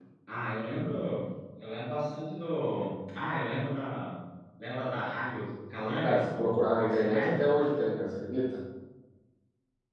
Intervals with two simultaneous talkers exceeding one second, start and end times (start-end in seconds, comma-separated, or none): 6.0-7.5